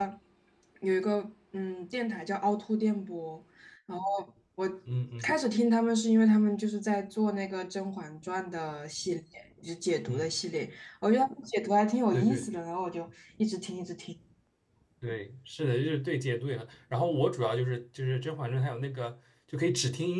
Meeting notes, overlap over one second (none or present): none